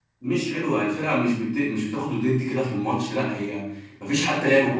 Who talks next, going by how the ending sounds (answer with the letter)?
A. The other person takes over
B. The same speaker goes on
A